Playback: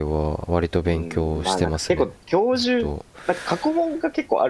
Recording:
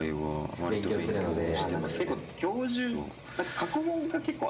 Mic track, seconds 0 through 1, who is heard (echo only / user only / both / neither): both